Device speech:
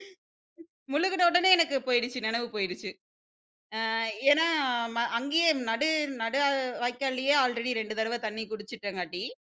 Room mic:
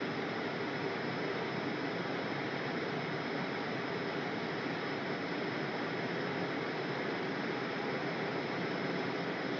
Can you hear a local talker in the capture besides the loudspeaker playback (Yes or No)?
No